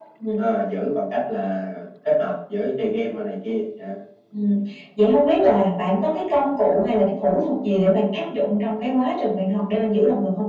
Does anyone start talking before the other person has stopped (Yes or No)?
No